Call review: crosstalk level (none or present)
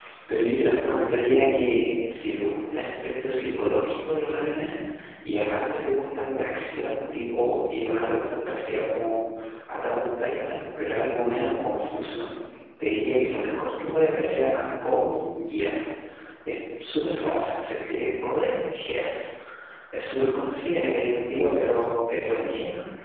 present